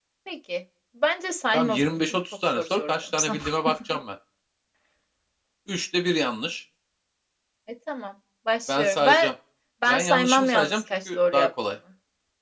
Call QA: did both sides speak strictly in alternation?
No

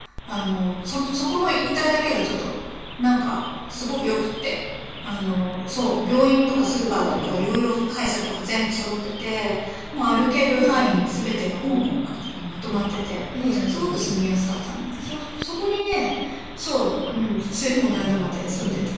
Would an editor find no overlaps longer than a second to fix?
No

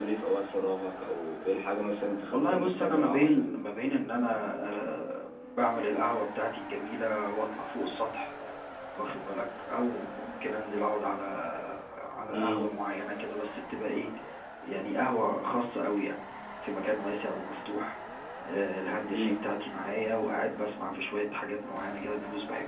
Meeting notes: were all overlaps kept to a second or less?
No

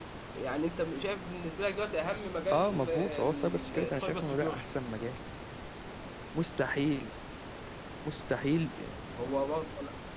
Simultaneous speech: Yes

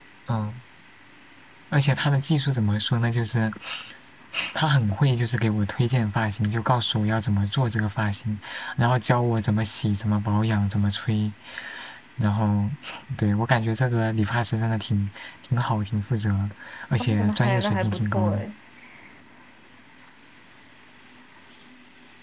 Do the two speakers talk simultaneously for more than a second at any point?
Yes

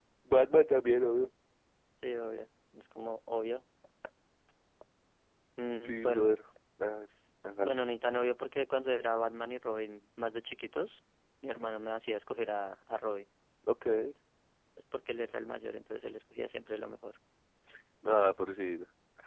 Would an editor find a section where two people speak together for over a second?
No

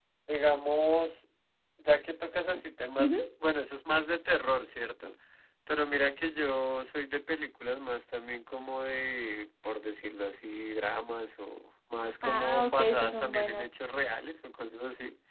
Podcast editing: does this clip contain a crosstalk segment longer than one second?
Yes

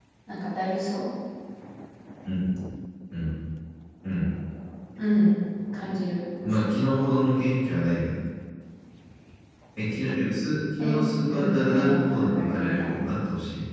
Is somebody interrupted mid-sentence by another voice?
Yes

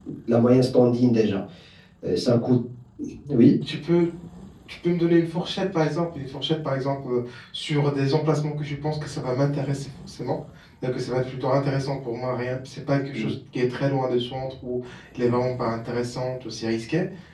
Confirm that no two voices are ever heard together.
Yes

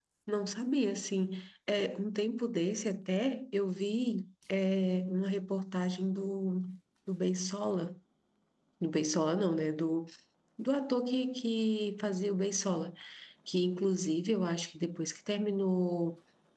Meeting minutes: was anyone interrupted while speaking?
No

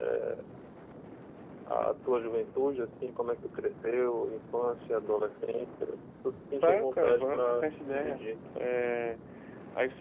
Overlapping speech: Yes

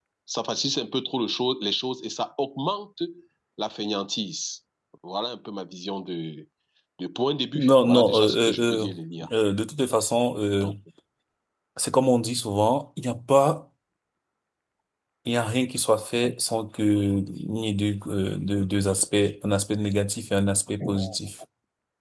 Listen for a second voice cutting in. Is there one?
Yes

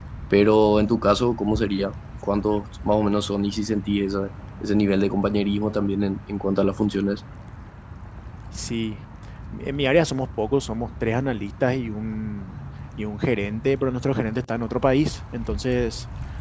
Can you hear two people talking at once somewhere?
No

